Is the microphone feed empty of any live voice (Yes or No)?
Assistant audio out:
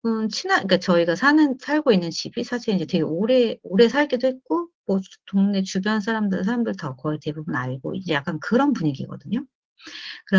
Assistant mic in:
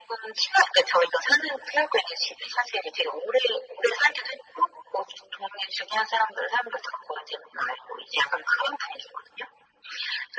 Yes